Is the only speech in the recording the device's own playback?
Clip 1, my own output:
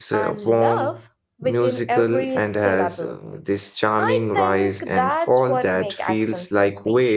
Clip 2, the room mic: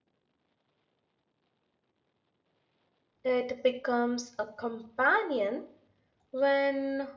No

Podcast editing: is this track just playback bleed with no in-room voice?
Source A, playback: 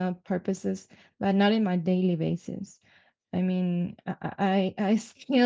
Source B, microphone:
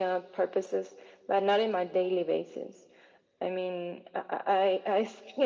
Yes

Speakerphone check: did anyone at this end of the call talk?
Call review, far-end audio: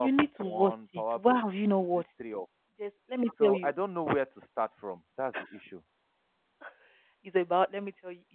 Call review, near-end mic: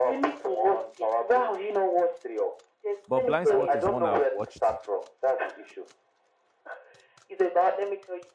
Yes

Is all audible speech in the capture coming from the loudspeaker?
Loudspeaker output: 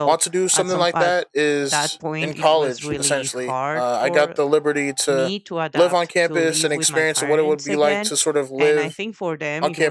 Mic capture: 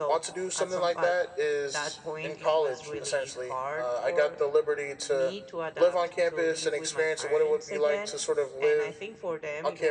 Yes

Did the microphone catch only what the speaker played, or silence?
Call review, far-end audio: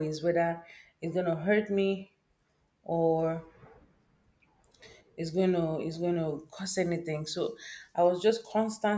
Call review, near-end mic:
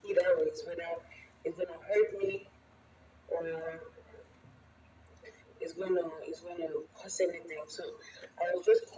Yes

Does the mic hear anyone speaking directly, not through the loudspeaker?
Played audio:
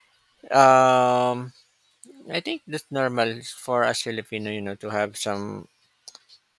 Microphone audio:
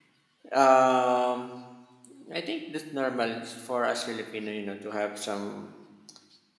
No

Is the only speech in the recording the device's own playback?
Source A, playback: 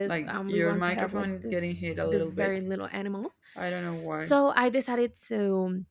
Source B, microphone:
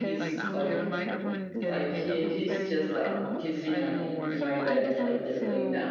No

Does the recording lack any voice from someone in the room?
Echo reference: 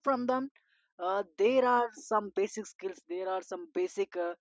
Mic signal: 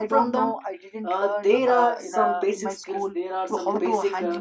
No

